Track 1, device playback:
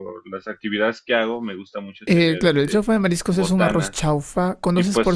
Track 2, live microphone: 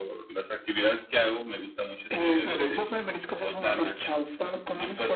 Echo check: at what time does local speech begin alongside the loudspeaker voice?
none

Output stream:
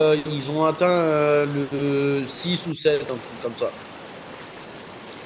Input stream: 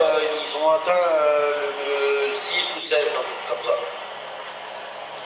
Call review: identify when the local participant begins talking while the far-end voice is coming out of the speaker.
none

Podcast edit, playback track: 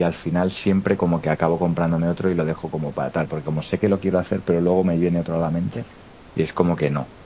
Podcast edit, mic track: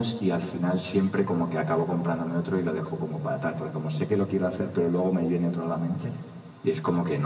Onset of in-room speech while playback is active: none

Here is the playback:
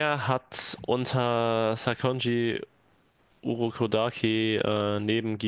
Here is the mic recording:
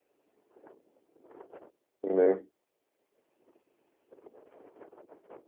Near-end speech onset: 2.0 s

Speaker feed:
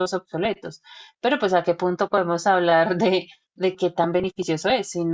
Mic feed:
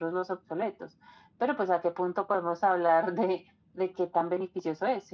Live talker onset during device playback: none

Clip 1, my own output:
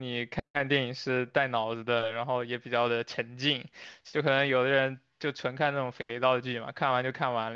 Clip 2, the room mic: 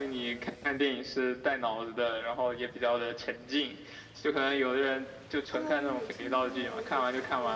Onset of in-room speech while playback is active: 5.5 s

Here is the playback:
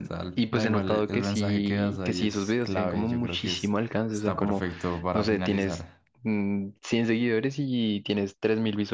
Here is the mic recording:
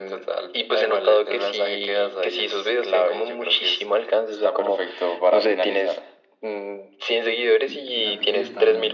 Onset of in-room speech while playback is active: 7.6 s

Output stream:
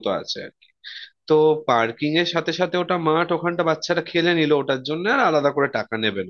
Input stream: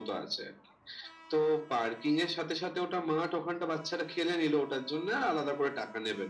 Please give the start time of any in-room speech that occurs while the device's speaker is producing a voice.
none

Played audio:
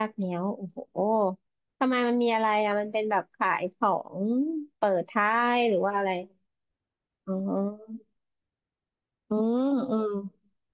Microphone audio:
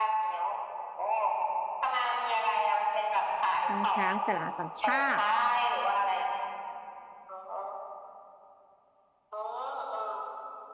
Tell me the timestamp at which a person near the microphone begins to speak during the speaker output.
3.6 s

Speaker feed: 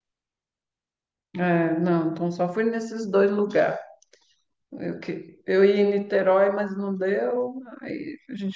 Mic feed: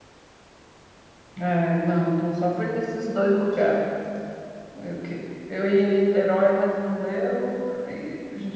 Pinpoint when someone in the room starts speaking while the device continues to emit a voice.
none

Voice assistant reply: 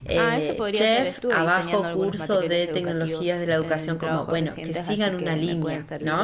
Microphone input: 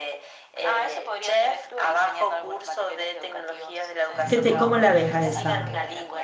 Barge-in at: 4.3 s

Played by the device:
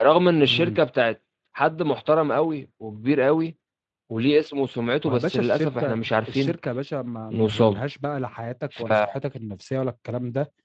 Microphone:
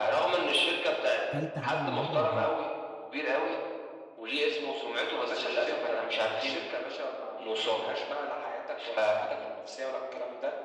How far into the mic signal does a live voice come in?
1.3 s

